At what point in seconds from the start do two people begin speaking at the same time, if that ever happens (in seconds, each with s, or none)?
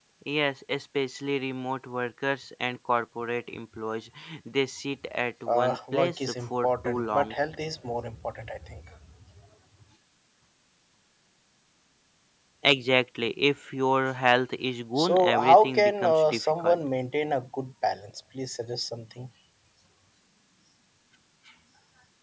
5.5 s